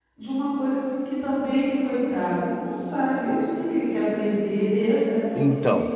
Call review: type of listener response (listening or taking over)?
taking over